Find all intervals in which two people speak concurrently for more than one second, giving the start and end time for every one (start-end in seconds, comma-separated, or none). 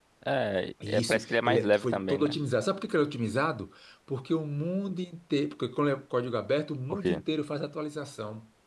0.9-2.4